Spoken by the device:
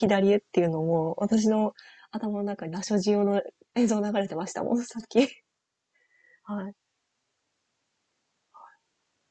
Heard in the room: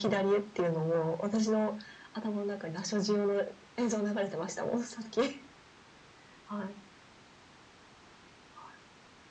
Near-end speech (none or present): none